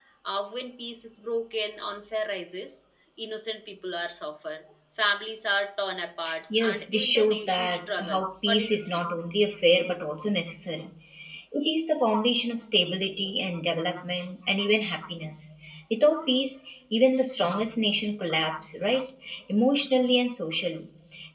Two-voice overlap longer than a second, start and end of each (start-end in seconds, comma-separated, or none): 6.5-9.0